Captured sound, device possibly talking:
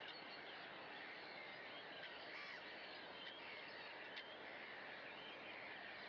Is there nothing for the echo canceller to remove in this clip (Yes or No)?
Yes